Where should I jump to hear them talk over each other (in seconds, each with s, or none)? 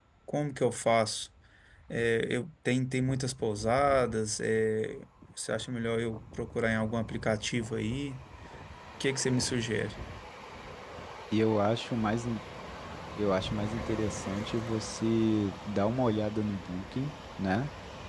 none